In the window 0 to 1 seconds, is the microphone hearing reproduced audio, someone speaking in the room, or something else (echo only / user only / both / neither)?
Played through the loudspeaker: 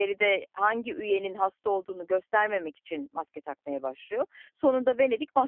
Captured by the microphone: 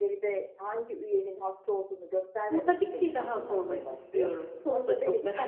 echo only